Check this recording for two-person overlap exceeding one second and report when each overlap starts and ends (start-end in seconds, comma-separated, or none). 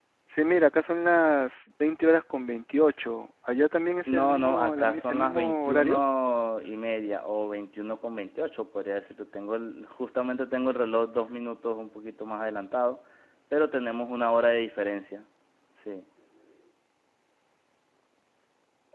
4.1-6.0